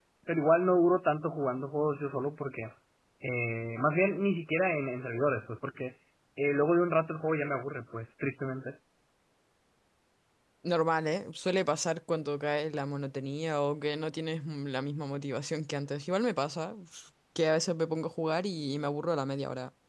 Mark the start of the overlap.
none

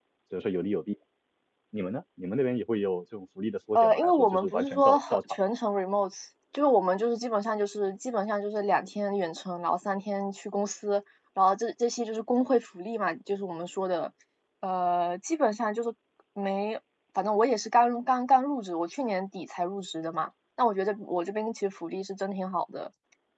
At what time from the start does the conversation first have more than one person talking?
3.8 s

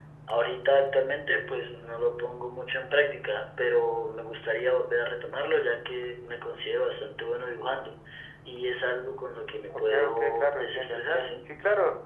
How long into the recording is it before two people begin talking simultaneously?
9.7 s

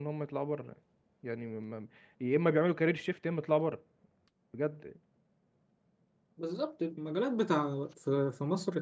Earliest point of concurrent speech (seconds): none

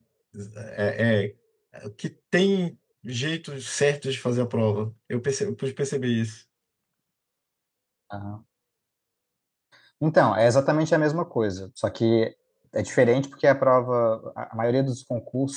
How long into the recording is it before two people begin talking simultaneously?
none

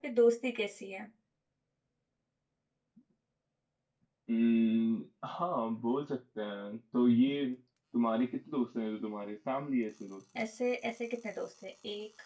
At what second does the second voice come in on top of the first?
none

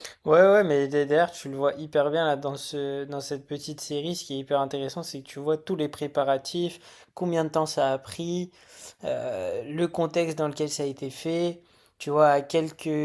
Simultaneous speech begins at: none

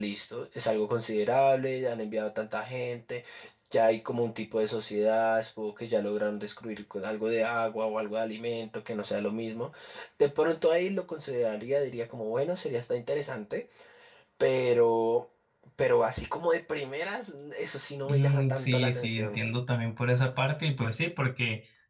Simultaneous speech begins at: 18.1 s

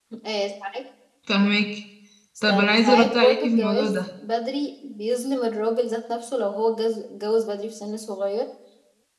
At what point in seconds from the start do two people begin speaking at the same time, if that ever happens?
2.5 s

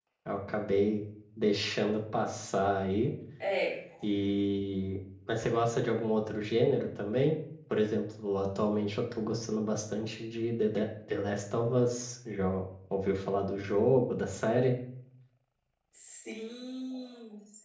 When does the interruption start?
none

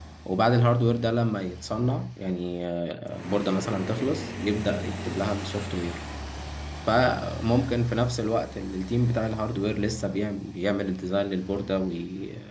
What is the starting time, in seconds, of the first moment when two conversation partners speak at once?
none

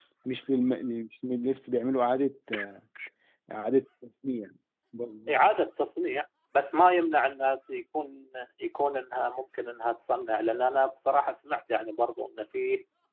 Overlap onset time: none

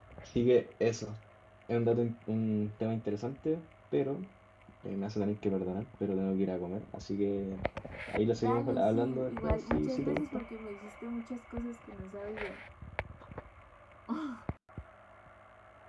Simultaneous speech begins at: 8.3 s

